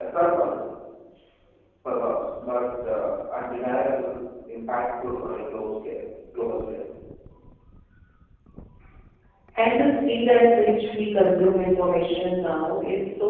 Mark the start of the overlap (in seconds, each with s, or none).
none